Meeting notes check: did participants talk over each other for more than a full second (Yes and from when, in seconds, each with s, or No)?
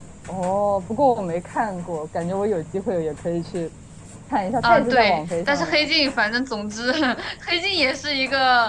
Yes, from 4.6 s